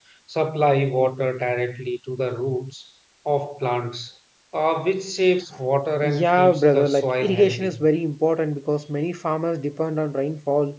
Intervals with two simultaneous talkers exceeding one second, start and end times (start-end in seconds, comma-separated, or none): 6.0-7.8